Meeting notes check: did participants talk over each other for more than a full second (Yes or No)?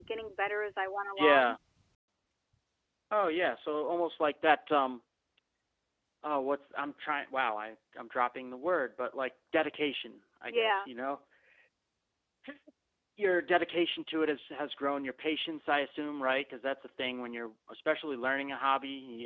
No